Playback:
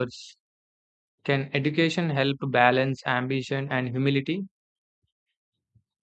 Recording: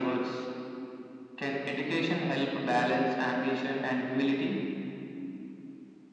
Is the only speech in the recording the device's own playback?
Yes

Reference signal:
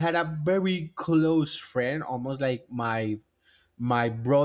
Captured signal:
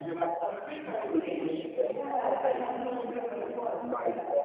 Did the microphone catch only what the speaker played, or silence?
No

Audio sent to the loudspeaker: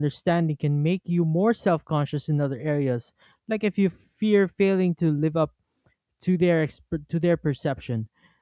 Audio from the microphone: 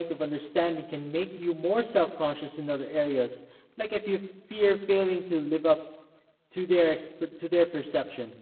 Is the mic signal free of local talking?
Yes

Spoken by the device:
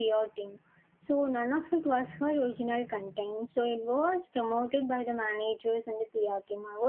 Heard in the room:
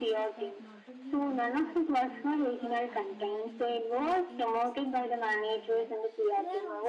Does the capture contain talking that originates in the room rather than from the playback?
Yes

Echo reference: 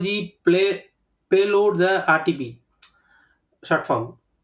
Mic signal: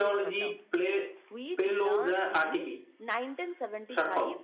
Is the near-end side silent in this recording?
No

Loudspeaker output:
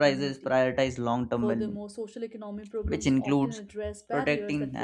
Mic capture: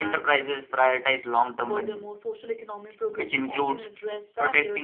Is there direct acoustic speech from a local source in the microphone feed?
No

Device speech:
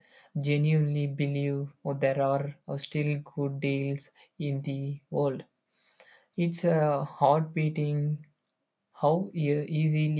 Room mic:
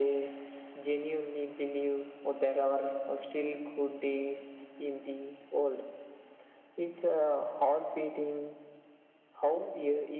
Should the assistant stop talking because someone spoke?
No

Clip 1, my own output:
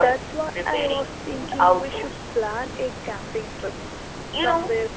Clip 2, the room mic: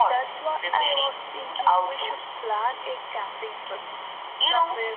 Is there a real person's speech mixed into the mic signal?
No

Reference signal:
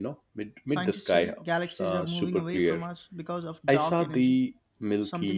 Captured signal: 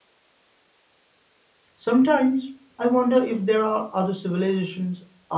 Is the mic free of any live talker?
No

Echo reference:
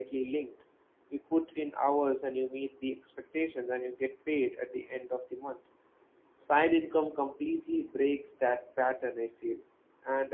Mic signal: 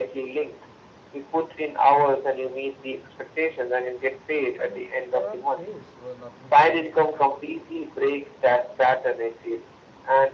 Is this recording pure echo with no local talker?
No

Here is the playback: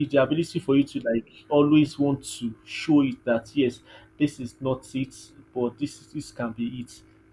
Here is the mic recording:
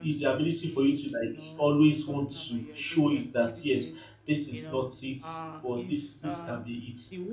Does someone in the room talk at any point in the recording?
Yes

